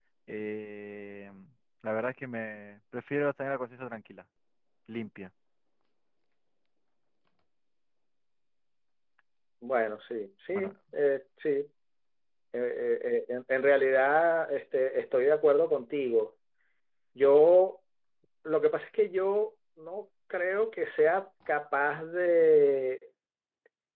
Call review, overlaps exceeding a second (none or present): none